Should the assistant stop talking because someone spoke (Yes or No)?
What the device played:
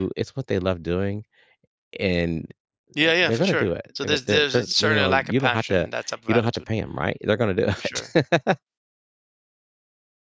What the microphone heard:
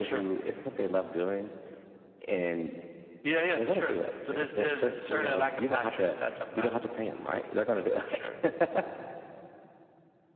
No